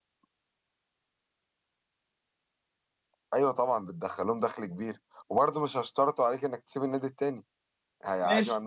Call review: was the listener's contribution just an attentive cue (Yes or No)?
Yes